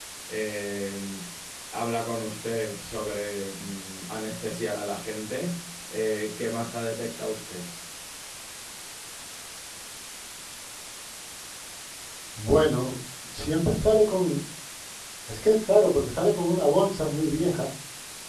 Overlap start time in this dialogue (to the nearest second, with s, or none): none